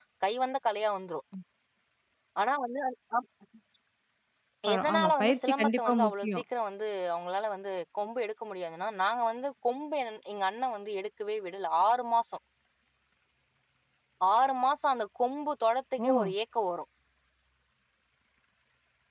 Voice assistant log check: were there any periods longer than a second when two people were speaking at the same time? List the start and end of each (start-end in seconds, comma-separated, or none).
4.7-6.4